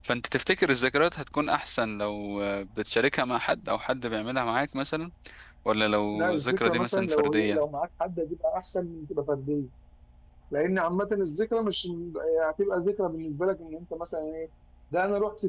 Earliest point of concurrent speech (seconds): 6.1 s

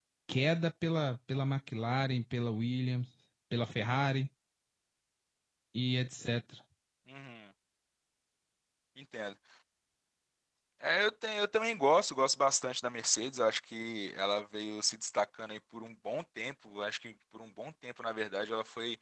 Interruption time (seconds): none

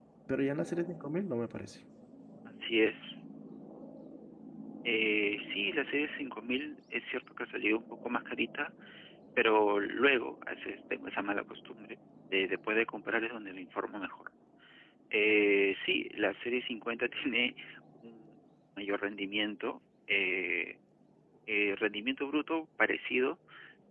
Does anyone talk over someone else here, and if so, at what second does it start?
none

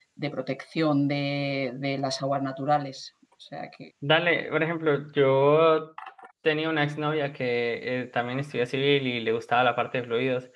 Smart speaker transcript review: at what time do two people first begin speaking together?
none

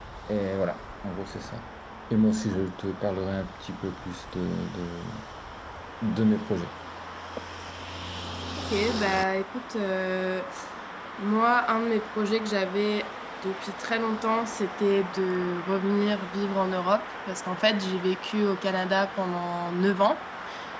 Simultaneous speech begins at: none

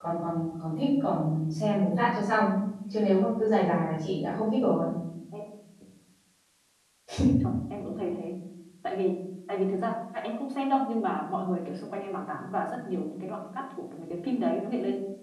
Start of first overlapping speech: none

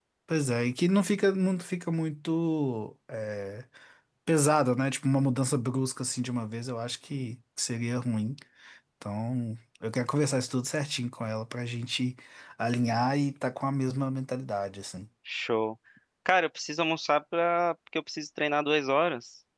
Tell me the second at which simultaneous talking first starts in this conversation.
none

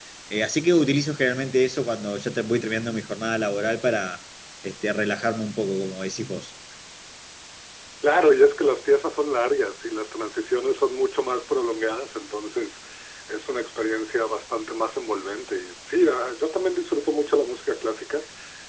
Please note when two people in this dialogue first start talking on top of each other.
none

